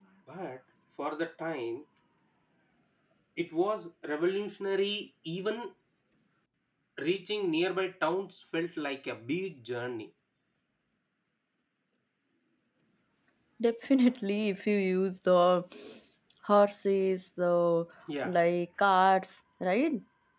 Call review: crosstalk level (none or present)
none